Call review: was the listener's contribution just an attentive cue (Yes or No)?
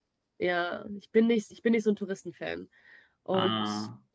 Yes